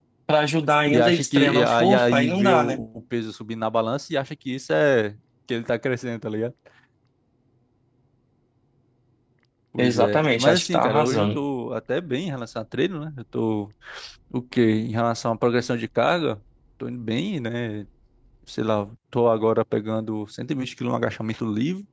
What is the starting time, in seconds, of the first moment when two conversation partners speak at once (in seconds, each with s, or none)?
0.9 s